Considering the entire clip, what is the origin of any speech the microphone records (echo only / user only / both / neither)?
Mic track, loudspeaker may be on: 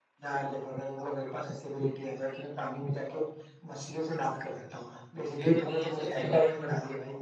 both